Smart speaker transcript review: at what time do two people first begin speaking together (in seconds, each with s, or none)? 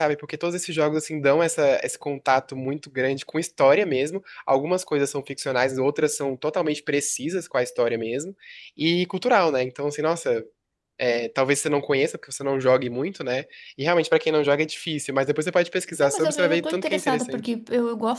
16.0 s